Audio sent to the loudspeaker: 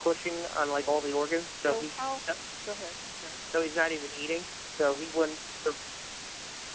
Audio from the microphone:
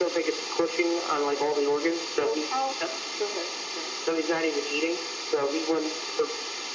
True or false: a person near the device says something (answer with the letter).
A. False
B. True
A